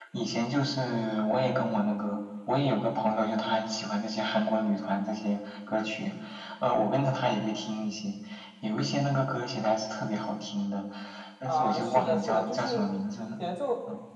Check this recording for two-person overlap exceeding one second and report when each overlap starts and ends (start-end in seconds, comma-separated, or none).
11.4-12.9